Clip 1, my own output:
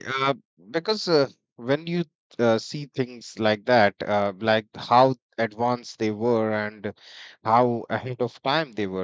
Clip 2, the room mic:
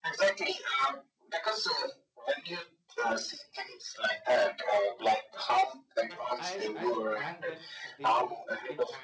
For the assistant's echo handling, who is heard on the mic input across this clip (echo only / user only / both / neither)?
both